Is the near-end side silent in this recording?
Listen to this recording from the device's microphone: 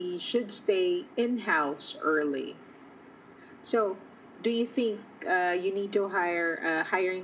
Yes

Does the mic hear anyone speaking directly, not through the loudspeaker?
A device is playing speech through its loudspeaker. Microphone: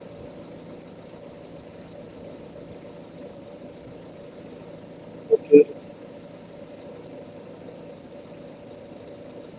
Yes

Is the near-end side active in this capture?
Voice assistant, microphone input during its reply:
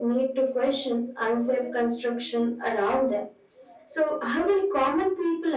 No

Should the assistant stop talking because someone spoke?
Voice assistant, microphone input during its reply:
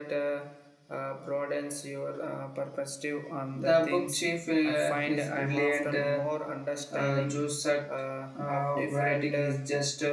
Yes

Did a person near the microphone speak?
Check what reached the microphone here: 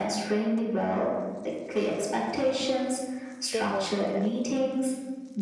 Yes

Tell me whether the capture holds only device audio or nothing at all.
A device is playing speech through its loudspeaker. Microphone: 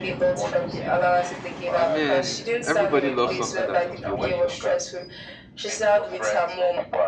No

